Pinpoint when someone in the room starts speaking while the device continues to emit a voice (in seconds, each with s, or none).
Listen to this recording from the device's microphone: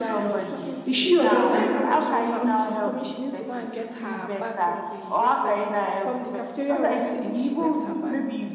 0.8 s